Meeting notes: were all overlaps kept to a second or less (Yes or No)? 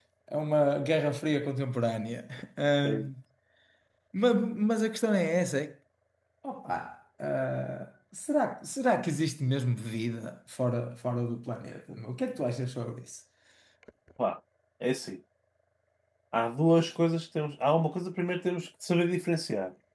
Yes